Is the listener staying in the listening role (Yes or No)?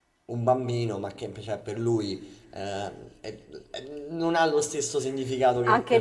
No